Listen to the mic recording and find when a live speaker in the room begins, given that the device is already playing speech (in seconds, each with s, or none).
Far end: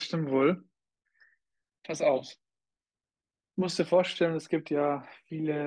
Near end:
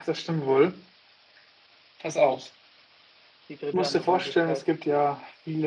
3.5 s